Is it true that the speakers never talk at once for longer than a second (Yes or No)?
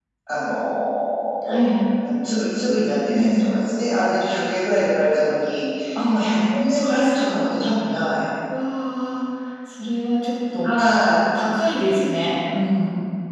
No